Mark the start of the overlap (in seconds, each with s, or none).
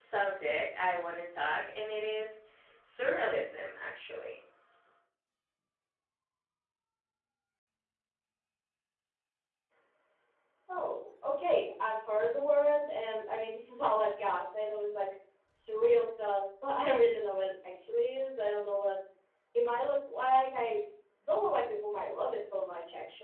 none